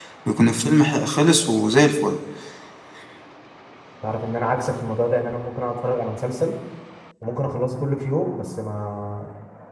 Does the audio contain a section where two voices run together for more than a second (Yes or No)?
No